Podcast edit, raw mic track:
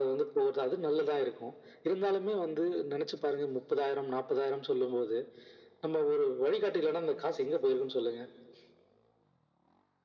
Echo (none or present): present